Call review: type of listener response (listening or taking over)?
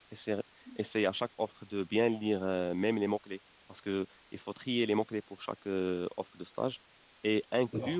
listening